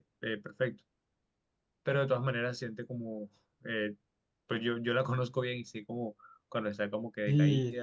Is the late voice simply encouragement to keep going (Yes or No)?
No